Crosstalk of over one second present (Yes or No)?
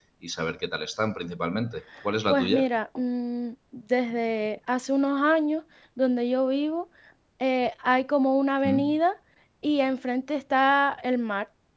No